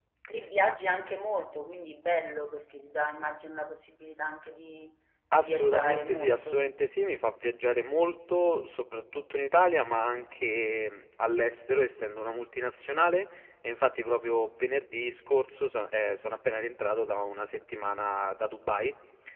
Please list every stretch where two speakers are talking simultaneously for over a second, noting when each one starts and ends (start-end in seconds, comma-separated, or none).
5.4-6.6